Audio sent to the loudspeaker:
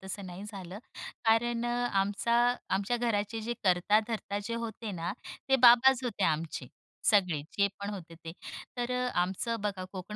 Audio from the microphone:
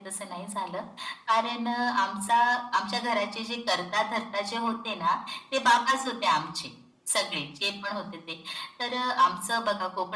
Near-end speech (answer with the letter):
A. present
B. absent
B